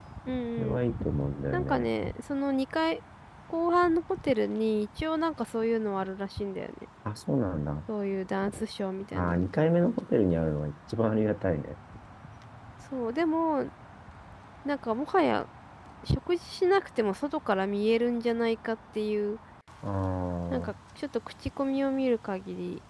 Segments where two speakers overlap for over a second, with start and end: none

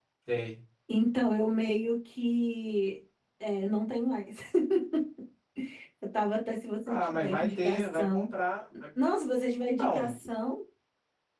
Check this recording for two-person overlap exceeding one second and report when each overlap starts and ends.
6.9-8.3

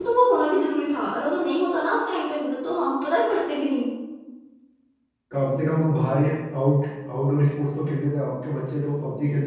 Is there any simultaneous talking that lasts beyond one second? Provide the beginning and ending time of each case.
none

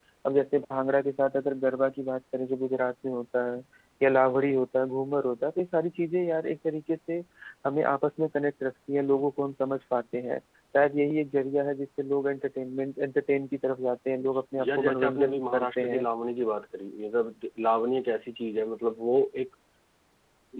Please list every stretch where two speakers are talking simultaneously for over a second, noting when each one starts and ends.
14.6-16.1

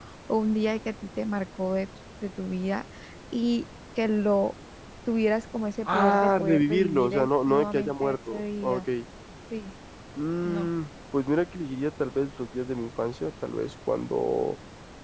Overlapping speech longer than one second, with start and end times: 5.9-8.8

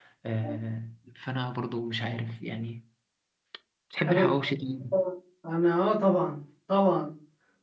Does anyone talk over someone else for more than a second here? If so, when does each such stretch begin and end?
none

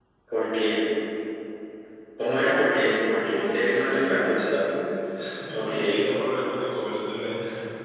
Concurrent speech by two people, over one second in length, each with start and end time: 3.2-4.6

